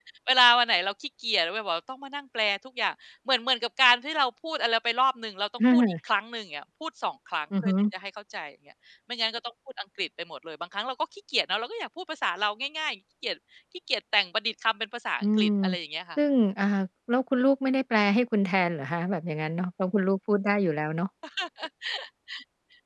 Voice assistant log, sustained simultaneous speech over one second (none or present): none